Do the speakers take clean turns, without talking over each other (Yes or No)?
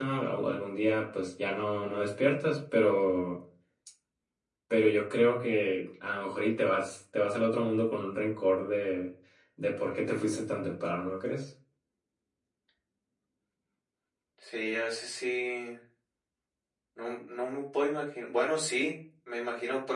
Yes